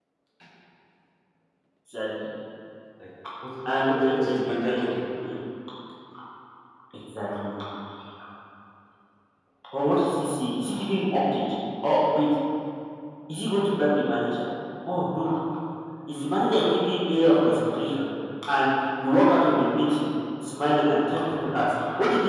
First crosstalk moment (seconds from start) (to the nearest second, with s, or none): 4 s